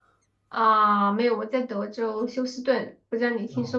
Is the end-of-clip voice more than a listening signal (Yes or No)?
Yes